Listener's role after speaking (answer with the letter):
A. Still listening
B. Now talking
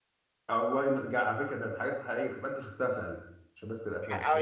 B